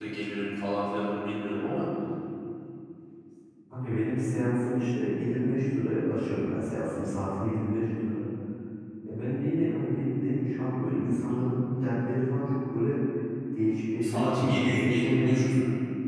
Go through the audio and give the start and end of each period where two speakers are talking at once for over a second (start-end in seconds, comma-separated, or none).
14.0-15.6